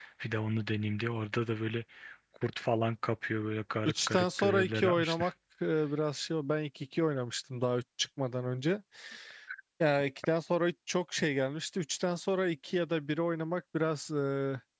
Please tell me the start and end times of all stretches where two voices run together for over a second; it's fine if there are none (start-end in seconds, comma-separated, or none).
3.8-5.3